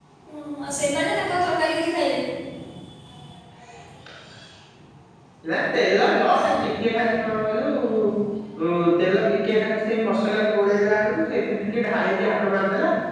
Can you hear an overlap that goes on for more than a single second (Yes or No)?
No